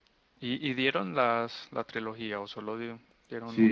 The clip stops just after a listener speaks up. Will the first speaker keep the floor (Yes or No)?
No